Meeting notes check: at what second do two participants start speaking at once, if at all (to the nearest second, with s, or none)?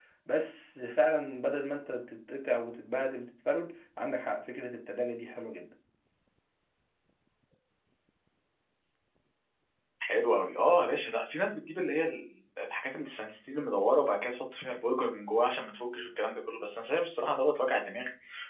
none